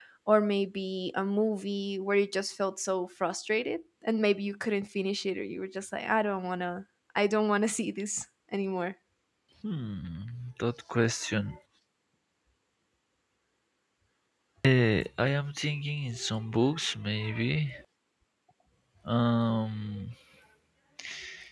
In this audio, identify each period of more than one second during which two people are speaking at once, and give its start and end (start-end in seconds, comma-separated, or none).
none